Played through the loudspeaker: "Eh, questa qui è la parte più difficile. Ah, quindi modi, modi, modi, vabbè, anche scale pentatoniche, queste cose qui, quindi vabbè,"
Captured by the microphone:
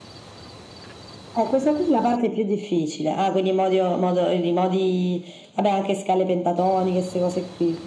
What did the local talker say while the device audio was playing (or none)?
none